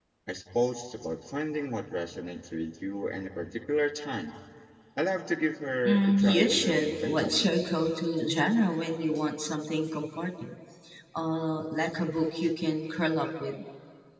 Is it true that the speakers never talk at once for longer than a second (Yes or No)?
No